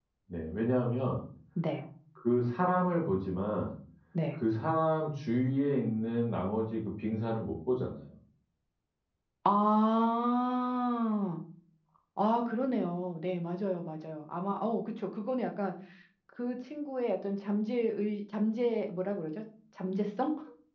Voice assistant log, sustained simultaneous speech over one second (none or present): none